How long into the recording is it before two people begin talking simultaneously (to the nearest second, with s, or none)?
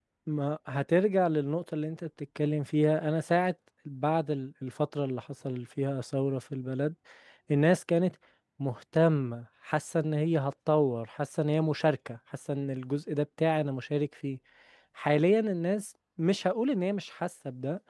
none